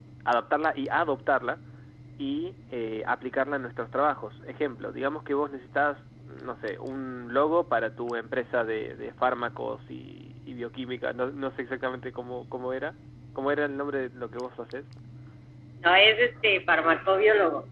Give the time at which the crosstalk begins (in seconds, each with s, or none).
none